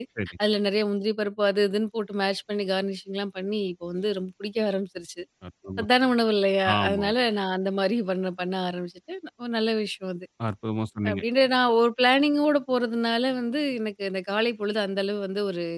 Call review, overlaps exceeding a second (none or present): none